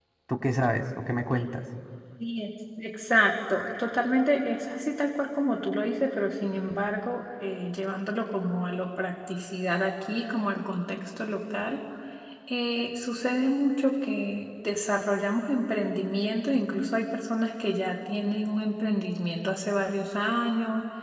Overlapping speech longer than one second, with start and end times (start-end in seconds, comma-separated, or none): none